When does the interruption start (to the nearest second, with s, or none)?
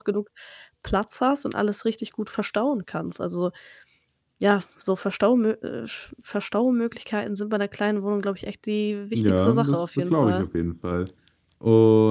9 s